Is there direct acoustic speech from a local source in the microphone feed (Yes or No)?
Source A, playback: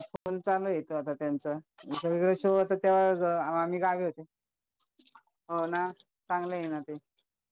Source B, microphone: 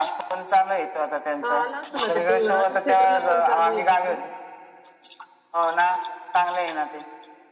Yes